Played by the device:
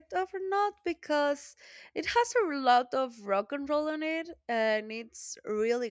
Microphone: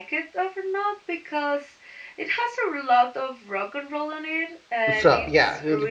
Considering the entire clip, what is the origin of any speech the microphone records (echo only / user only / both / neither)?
both